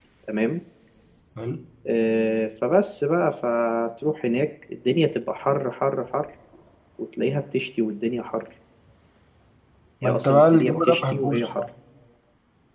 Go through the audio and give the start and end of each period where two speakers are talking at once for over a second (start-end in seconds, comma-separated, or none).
10.0-11.6